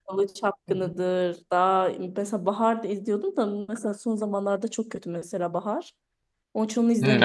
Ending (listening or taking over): taking over